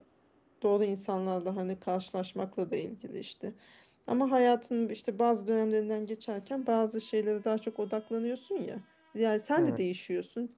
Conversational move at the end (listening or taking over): listening